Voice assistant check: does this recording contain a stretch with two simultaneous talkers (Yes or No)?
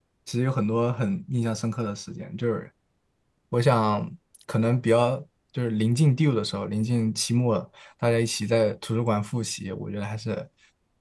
No